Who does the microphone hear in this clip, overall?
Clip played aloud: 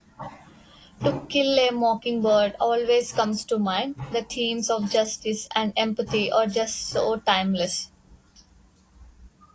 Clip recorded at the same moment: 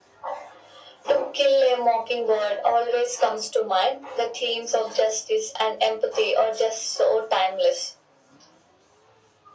echo only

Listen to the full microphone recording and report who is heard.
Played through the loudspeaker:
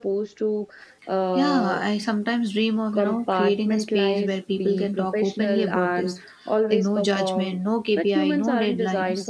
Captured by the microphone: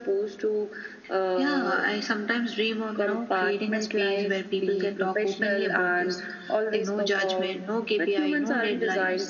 echo only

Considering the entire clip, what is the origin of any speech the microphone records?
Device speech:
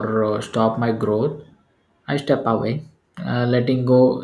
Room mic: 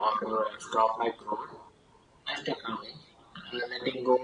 echo only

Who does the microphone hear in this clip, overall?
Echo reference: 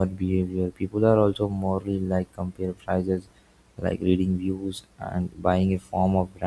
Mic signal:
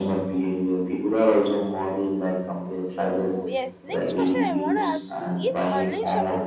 both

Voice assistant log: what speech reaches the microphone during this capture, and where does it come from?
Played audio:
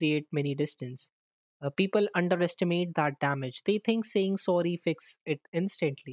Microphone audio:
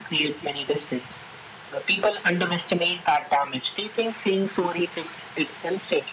echo only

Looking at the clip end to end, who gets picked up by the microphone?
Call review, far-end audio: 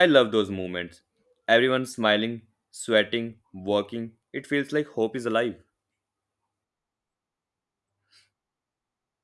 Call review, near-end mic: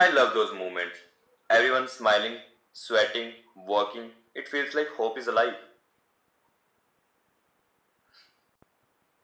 echo only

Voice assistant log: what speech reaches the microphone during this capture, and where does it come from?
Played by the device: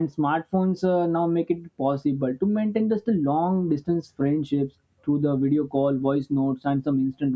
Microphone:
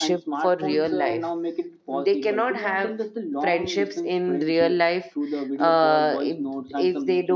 both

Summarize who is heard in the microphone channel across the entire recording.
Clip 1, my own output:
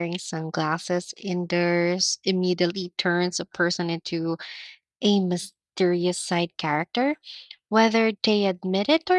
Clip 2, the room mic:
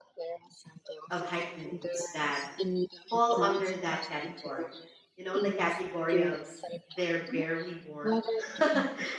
both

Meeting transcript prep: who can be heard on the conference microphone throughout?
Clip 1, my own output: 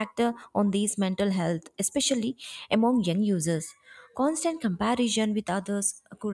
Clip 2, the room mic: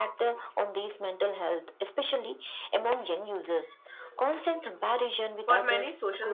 both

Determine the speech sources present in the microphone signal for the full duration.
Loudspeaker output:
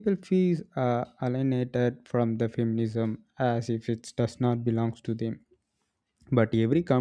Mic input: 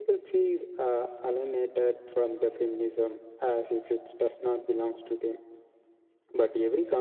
echo only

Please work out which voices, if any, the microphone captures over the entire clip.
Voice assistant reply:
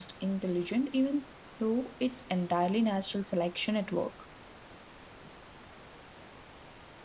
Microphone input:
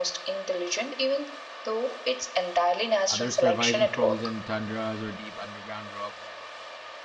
both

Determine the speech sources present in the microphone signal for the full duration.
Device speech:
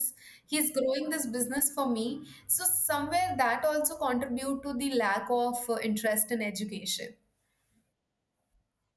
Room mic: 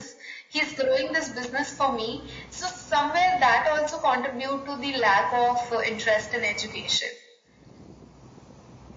echo only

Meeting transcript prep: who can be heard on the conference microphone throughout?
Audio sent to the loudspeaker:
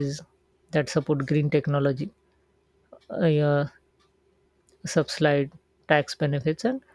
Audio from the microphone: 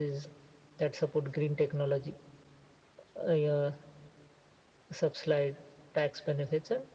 echo only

